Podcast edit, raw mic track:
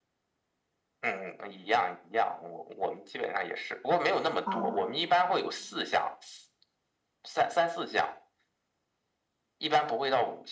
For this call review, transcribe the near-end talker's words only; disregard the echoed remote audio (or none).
啊，